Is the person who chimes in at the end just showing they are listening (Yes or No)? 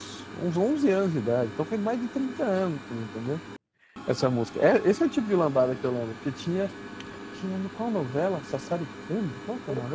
Yes